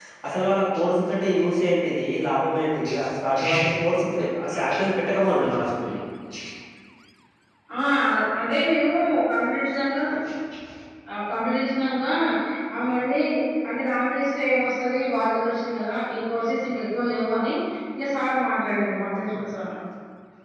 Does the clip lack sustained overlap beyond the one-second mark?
Yes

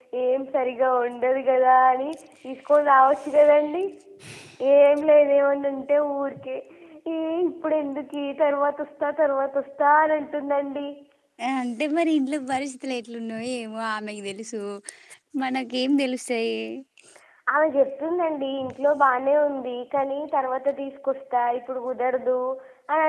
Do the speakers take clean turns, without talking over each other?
Yes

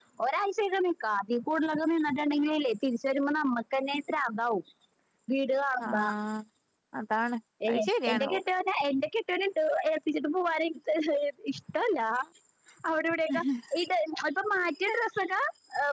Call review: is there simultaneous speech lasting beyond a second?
No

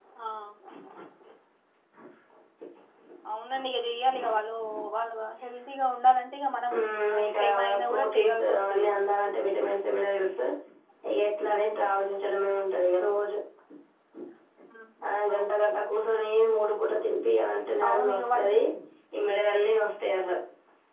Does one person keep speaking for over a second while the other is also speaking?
Yes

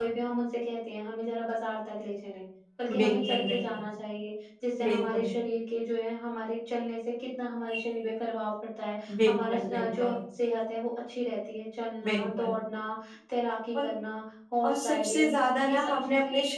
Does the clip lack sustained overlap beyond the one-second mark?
No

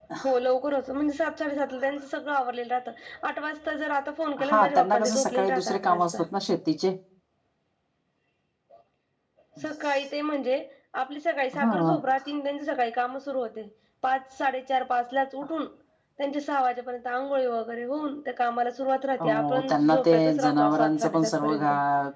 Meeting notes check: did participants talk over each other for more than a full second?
Yes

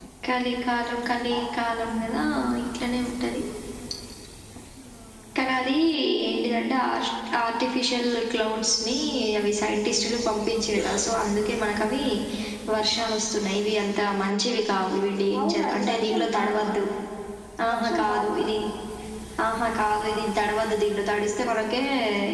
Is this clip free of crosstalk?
No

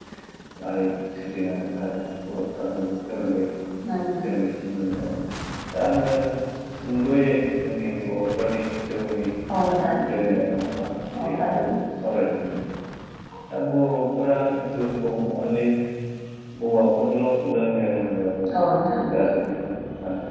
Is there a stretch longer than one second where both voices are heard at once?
No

